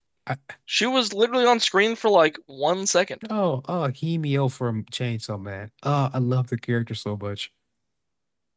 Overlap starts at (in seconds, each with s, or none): none